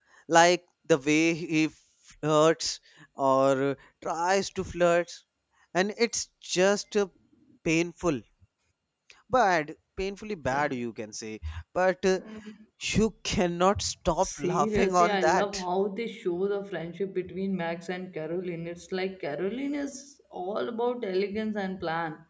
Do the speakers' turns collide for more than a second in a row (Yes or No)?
Yes